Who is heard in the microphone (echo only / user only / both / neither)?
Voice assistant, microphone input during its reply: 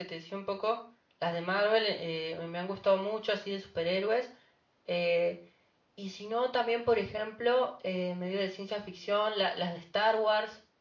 user only